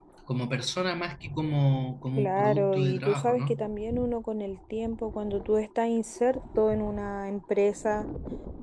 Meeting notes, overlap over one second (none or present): present